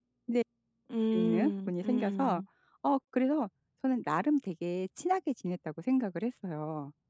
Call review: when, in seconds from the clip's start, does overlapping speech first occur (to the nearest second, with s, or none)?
1 s